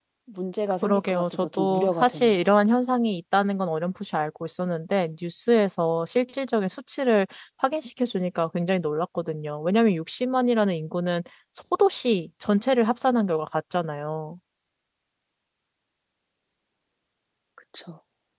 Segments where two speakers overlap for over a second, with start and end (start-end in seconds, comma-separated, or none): 0.8-2.4